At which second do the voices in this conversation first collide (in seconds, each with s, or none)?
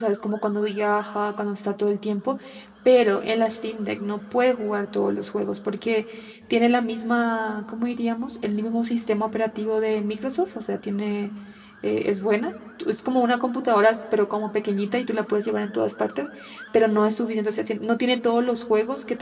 none